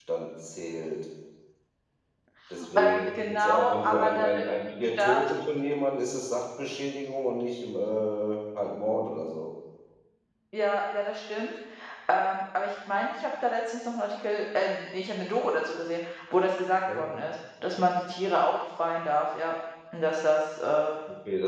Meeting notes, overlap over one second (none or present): present